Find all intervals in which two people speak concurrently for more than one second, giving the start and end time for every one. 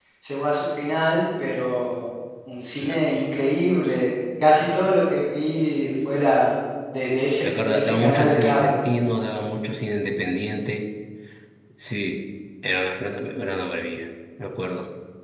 7.4-8.8

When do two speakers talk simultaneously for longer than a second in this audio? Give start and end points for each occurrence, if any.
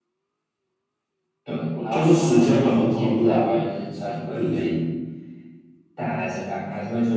1.9-3.7

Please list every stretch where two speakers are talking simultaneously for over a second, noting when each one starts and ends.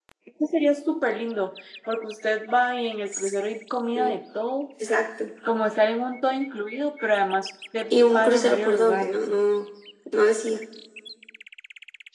7.9-9.2

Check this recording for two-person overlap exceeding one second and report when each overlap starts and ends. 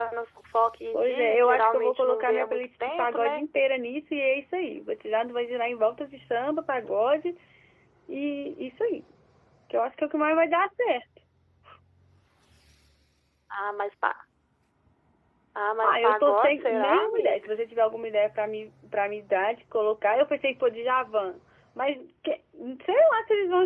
0.9-3.4, 15.8-17.5

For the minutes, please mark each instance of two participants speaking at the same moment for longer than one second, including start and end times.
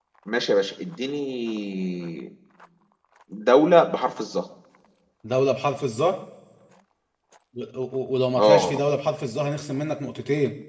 none

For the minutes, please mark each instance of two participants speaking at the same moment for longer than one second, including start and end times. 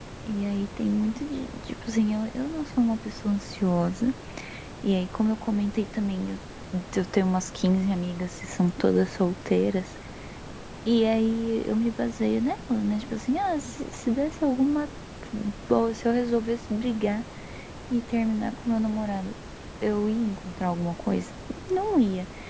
none

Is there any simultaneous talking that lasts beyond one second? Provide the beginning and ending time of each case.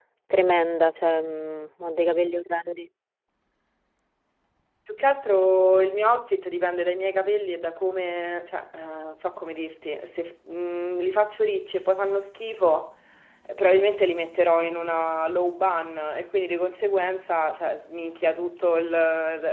none

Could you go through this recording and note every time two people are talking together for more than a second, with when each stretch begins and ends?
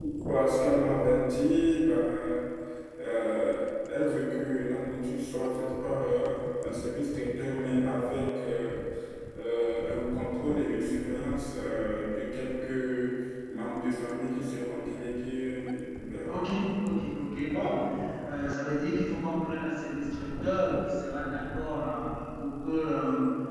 none

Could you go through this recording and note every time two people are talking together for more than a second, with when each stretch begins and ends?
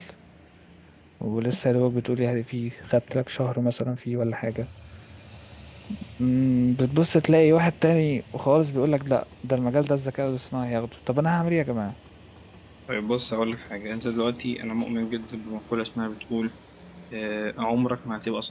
none

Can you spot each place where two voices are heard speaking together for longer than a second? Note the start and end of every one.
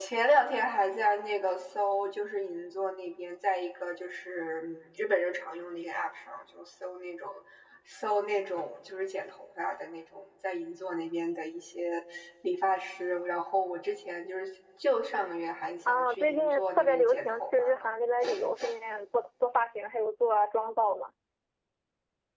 15.9-17.7

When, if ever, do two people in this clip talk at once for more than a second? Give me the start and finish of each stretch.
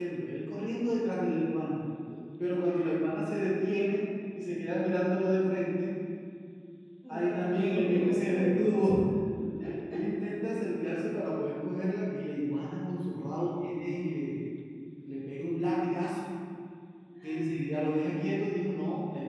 7.1-8.9

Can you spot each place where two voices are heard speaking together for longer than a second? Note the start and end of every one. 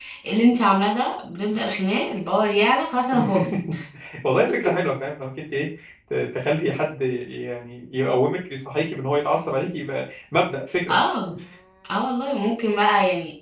none

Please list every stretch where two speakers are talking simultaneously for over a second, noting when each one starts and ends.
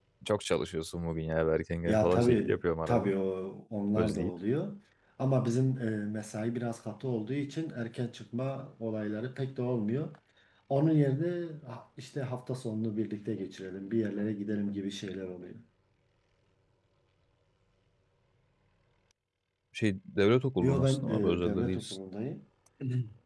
1.9-3.1, 20.6-22.0

